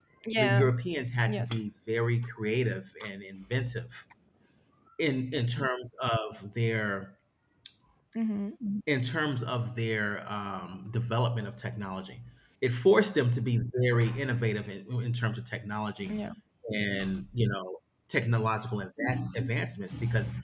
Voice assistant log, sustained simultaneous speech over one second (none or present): none